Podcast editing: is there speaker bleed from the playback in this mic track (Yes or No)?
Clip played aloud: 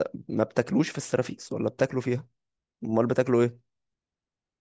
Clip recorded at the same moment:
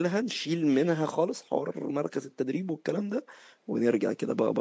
No